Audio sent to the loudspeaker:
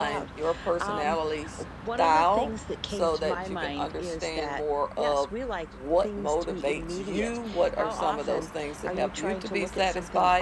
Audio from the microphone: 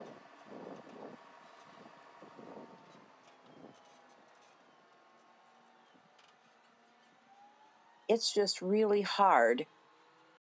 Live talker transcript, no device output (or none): it's just really hard,